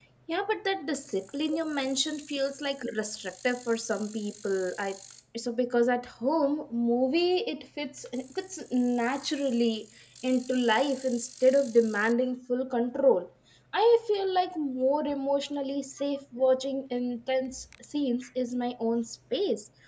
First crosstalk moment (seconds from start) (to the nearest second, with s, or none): none